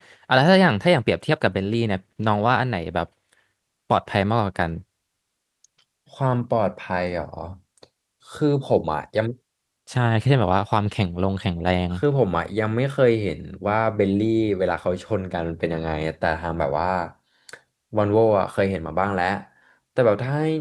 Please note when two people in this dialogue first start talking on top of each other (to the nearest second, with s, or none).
none